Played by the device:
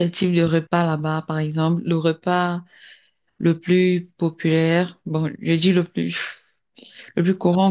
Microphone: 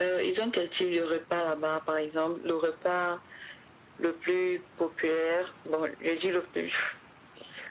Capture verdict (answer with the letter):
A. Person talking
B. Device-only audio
B